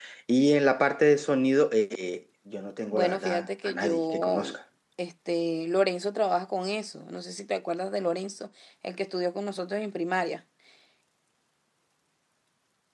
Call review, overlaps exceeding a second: present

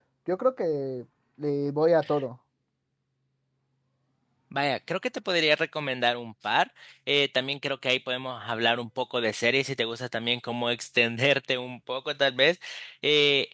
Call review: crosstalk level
none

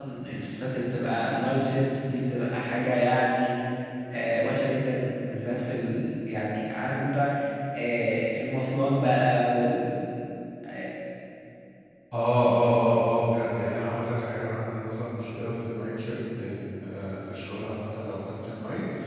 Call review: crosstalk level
none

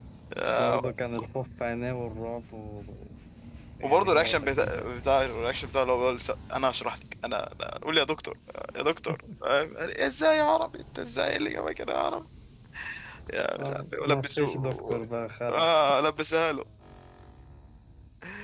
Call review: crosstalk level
present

